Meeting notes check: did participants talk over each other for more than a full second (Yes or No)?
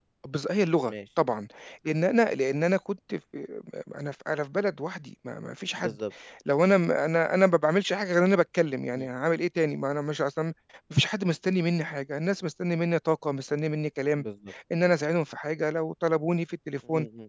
No